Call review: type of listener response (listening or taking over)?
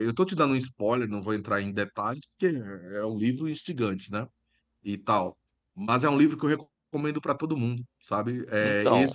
listening